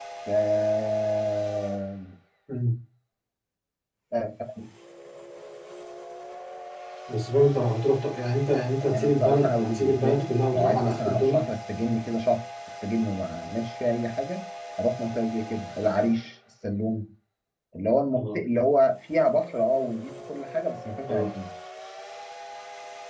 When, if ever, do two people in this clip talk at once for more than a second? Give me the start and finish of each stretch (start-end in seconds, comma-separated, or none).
8.8-11.4